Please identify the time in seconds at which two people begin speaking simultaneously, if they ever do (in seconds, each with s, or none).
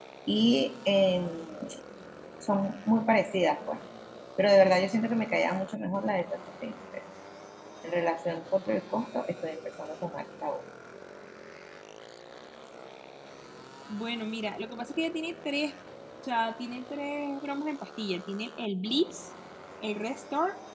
none